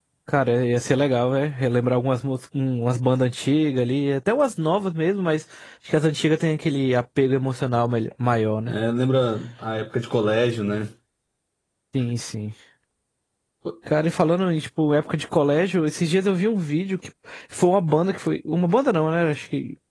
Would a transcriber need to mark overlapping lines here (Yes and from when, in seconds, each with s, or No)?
No